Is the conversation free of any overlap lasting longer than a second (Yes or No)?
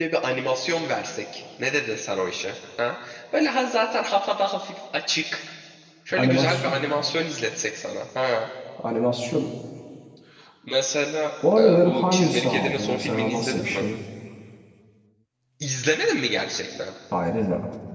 No